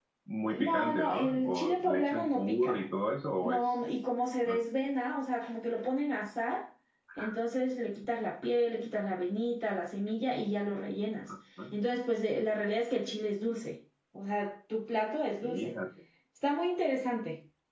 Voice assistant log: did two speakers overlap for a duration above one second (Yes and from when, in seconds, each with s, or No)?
Yes, from 0.6 s